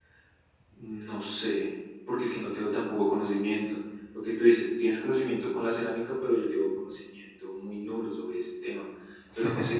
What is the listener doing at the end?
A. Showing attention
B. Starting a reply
A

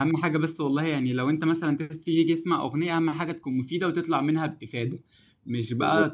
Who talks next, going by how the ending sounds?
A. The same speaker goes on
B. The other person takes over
A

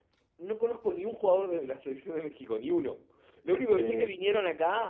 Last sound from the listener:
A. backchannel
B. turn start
A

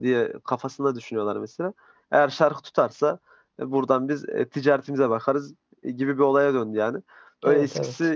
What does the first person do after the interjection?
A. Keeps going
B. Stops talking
A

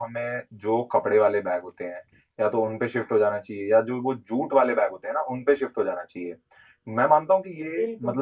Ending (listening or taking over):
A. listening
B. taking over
A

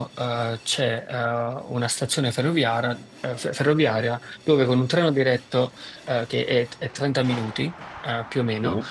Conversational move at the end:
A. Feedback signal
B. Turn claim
A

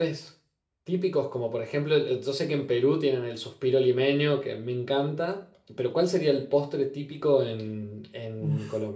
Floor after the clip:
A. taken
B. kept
A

